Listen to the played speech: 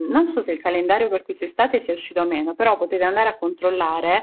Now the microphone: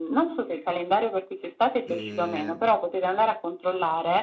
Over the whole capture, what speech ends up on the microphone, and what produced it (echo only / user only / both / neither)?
both